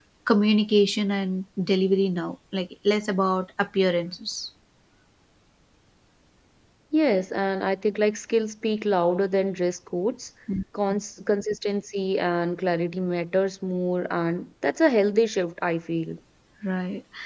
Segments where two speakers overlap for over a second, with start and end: none

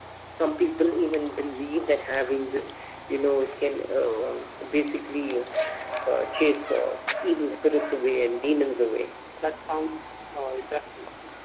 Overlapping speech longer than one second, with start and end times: none

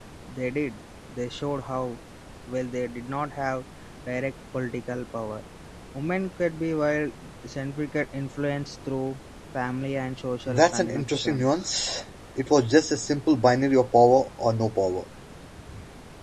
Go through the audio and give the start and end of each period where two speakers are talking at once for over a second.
10.5-11.7

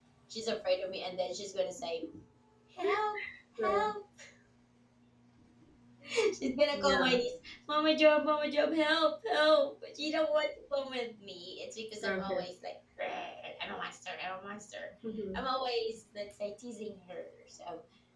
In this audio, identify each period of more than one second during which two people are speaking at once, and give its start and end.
none

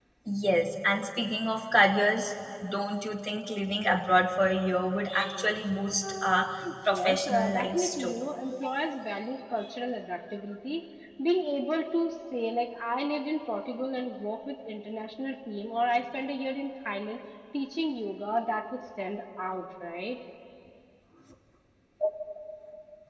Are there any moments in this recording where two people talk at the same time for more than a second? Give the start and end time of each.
6.2-8.1

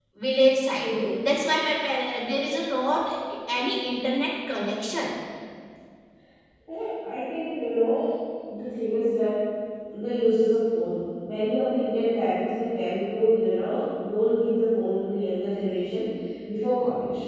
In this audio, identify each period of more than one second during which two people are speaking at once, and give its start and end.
none

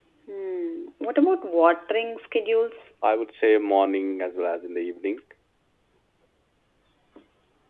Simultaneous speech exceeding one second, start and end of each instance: none

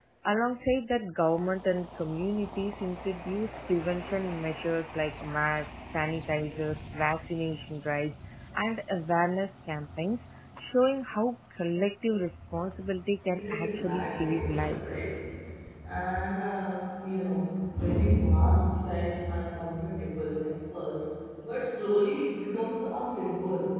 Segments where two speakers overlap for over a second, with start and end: 13.3-15.1

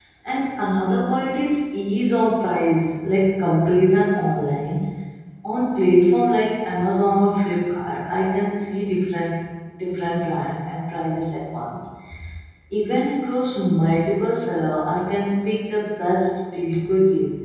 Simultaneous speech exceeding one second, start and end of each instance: none

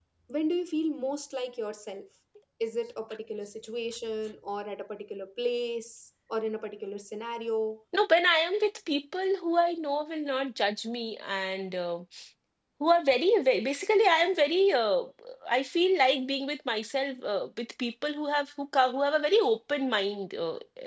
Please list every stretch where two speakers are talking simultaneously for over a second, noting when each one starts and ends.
none

